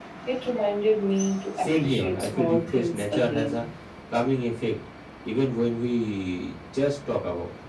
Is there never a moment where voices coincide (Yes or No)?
No